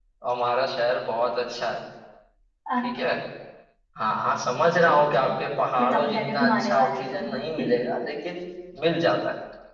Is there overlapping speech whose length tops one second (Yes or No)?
Yes